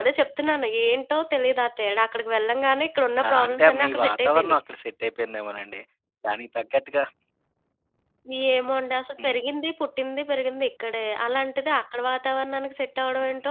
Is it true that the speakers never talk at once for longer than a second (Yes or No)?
No